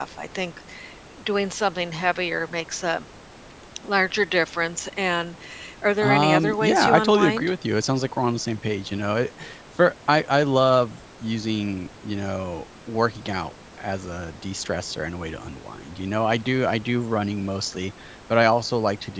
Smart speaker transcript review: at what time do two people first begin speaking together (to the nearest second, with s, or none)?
6 s